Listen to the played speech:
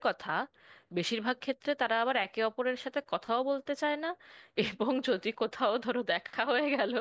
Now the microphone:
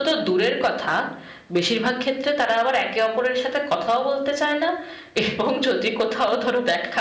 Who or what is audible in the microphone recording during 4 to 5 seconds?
echo only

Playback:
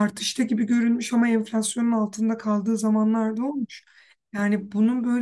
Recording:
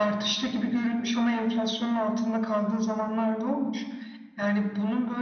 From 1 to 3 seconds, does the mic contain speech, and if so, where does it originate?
echo only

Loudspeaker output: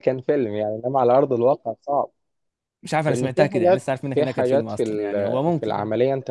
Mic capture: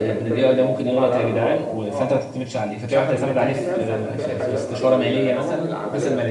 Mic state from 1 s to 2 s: both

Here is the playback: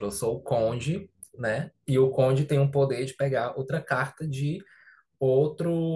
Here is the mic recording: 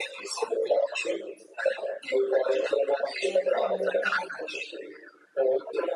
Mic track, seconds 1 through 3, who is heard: echo only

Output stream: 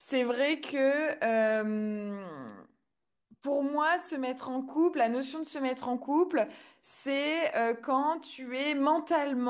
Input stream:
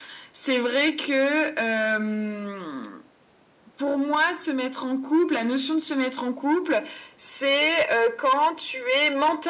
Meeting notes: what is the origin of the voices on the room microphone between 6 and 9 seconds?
echo only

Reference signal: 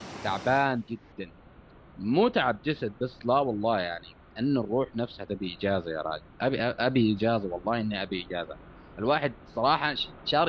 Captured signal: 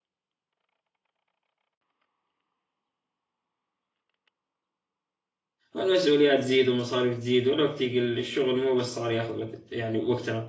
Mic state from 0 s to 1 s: neither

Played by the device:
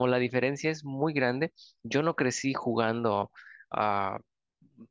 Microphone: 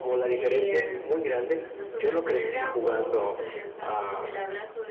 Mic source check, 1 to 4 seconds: both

